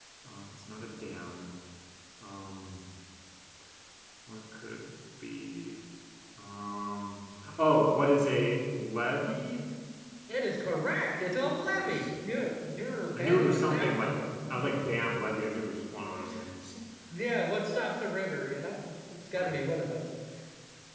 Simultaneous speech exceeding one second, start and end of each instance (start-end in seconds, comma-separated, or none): 13.2-14.6